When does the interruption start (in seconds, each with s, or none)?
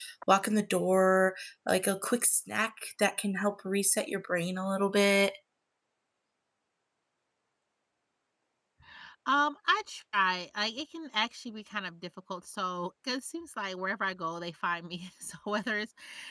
none